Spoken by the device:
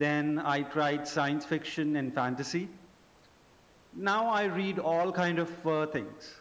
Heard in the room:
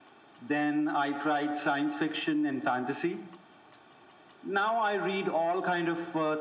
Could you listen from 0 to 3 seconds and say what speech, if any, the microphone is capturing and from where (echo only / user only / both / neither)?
echo only